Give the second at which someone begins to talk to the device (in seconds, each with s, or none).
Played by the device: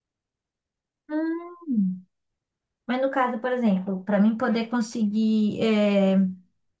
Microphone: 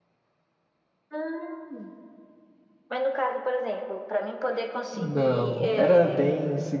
4.9 s